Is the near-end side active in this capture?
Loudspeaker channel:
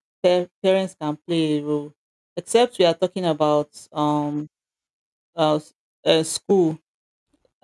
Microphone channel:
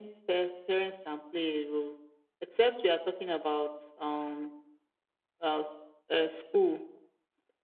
No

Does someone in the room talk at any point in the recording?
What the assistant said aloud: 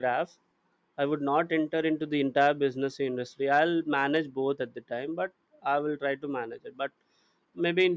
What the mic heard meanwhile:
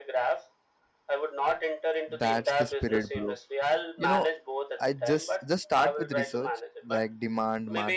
Yes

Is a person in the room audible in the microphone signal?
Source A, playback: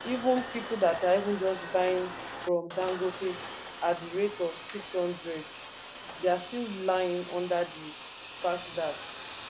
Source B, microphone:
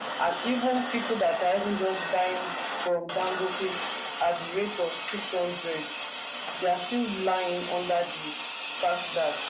No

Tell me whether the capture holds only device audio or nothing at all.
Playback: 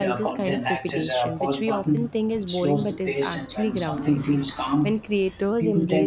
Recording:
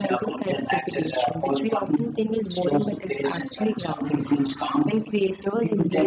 Yes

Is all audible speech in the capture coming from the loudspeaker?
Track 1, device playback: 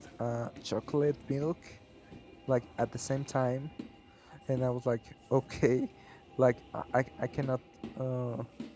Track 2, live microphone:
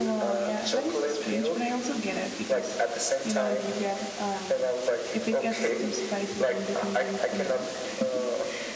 No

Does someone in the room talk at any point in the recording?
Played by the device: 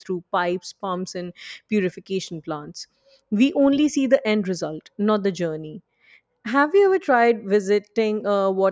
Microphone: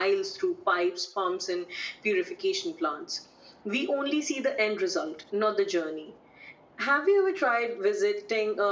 No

